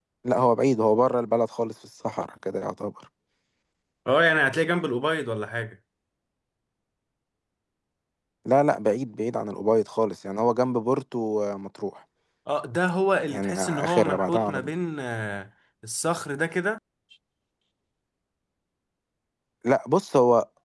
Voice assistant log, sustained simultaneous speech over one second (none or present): present